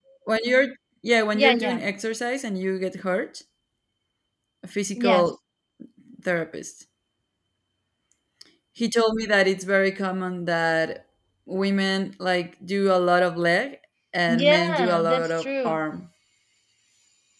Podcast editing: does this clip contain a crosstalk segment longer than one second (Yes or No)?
Yes